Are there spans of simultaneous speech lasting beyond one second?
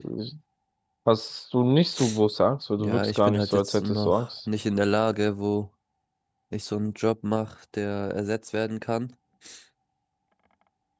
Yes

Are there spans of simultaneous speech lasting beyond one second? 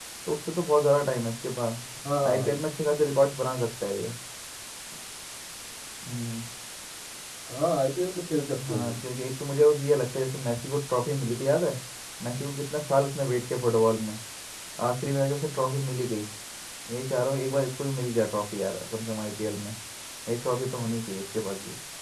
No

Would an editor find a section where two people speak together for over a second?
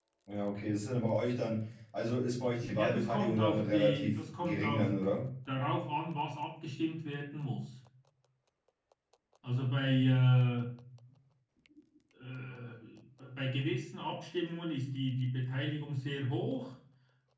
Yes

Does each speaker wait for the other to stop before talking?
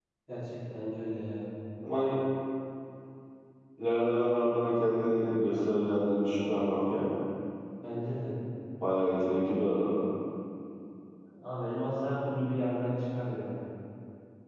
Yes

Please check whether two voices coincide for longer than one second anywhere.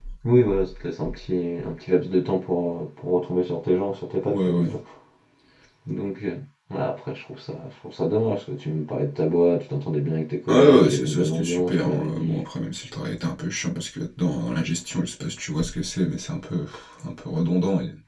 Yes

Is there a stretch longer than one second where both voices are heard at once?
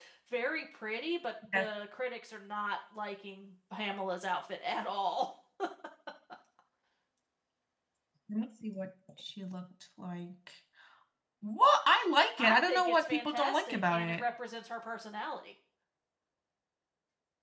Yes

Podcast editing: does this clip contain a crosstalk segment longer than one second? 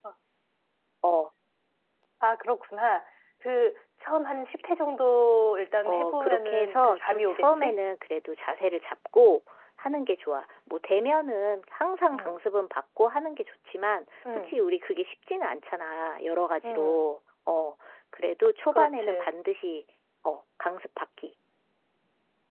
Yes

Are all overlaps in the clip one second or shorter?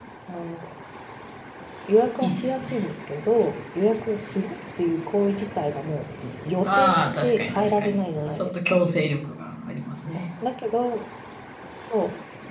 No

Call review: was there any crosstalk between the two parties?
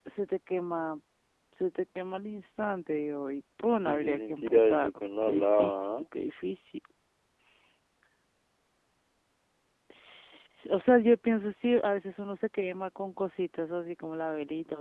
Yes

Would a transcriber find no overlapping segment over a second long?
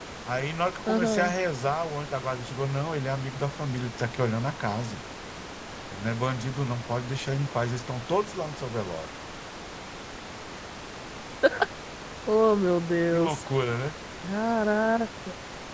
Yes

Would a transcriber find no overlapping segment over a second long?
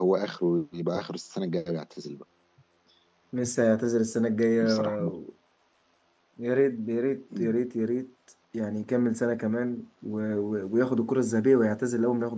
Yes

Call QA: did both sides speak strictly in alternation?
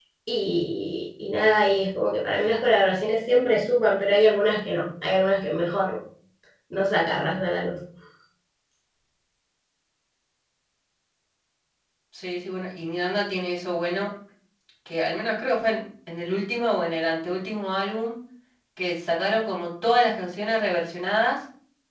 Yes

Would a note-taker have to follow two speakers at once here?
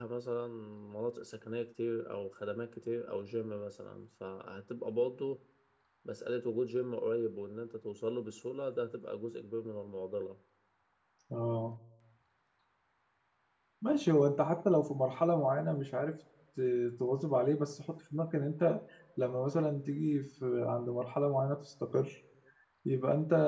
No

